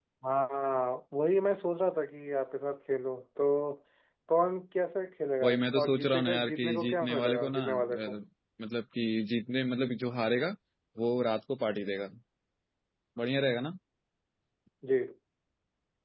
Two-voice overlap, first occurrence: 5.4 s

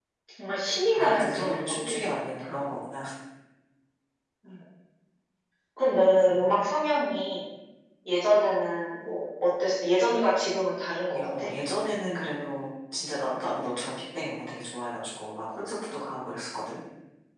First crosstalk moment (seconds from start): 0.9 s

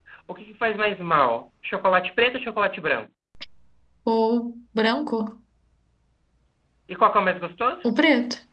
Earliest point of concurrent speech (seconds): none

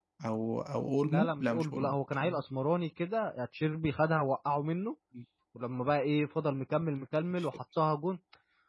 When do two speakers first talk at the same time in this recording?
1.1 s

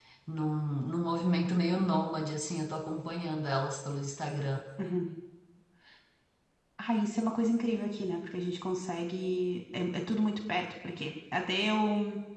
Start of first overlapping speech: none

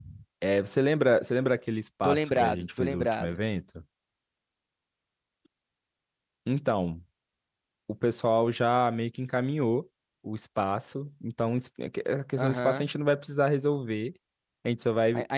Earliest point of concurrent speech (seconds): 2.0 s

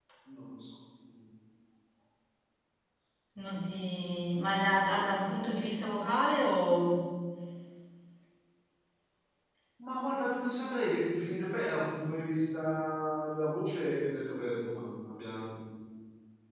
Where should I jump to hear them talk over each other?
none

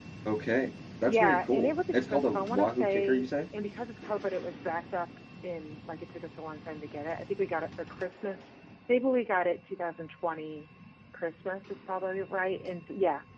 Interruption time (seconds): 1.1 s

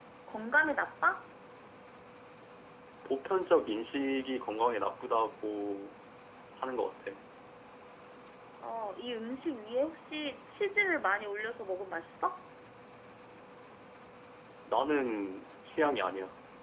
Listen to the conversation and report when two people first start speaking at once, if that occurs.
none

